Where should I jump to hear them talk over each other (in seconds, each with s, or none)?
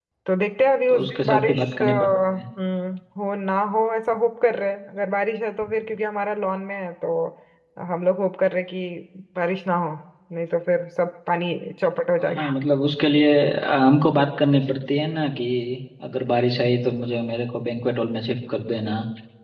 0.9 s